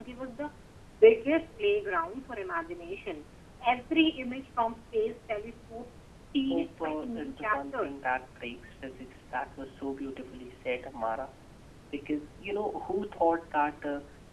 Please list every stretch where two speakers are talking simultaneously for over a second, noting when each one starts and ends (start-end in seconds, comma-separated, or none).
6.5-7.9